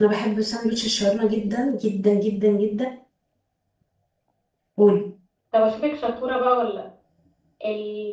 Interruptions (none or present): none